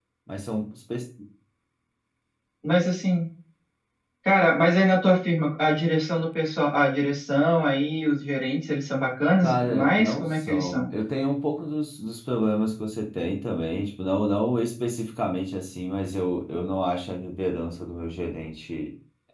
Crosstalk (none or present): present